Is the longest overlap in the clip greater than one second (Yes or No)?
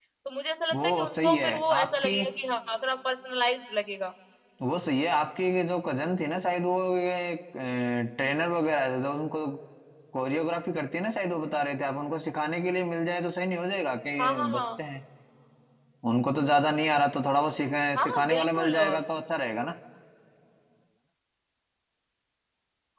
Yes